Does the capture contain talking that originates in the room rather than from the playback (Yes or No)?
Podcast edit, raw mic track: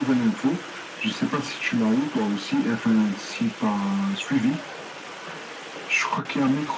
No